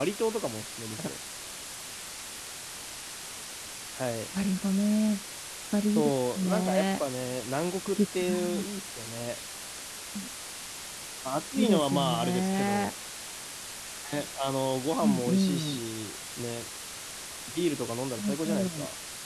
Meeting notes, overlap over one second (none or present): present